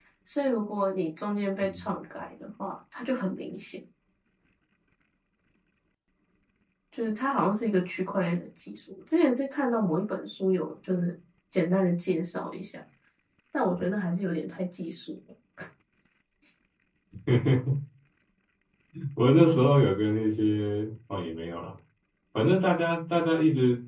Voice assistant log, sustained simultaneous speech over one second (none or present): none